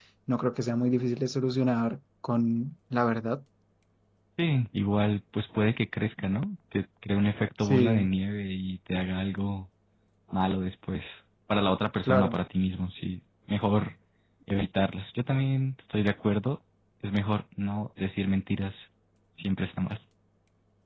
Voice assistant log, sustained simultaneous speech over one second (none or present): none